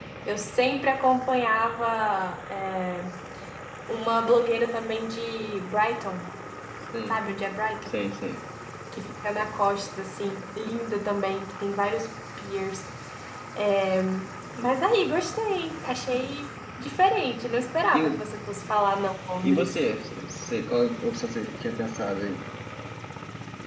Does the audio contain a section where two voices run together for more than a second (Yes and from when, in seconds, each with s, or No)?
No